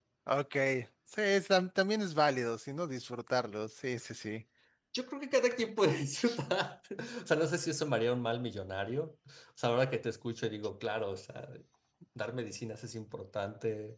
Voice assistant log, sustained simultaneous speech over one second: none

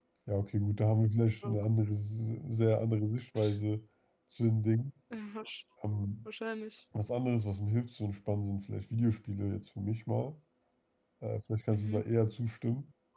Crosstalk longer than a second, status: none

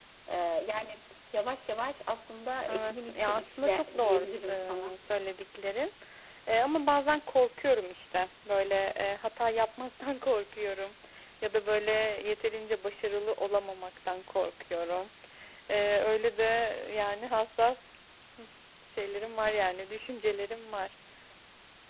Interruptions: present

